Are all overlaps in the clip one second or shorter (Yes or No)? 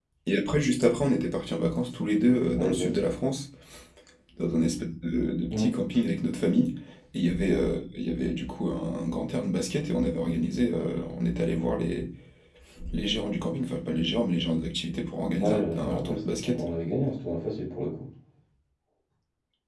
No